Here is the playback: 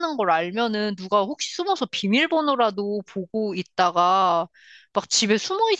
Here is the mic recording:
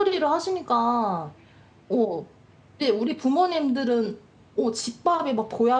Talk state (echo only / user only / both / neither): user only